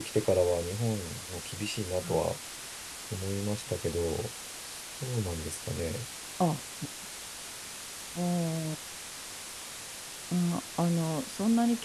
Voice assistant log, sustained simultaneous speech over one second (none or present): none